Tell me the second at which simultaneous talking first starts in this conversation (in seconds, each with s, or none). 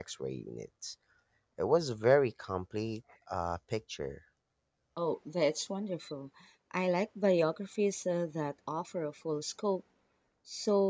none